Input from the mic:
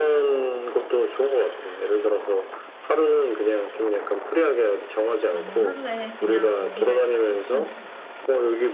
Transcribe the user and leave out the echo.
나는 하루에 그냥 거기를 다 썼으면 좋겠어.

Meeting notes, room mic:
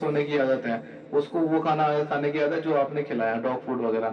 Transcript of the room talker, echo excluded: none

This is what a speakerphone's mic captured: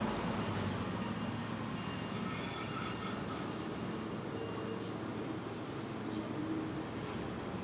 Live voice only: none

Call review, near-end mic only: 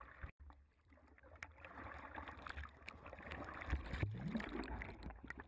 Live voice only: none

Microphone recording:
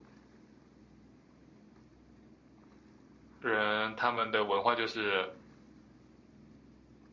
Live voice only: 人他们的文化就是

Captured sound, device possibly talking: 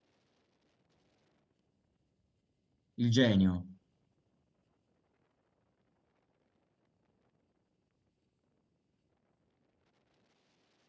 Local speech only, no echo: Il genio.

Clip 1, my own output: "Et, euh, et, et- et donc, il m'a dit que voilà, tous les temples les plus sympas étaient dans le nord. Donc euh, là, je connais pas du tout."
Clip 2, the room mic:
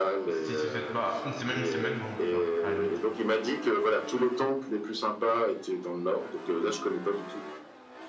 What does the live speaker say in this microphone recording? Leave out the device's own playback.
Si, si vous êtes, bah, une semaine, une semaine, ouais, on peut faire, à la limite.

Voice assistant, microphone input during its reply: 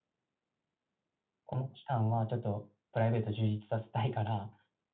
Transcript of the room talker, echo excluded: この期間はちょっとプライベート充実させたいから、

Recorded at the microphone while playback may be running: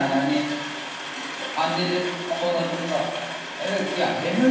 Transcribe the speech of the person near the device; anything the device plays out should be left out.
none

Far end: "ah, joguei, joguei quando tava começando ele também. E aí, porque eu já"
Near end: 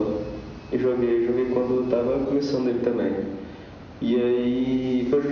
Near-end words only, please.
none

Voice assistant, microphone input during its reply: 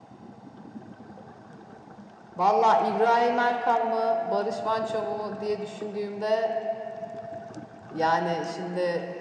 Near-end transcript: none

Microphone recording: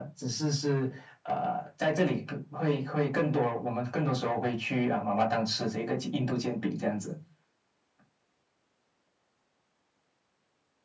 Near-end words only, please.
none

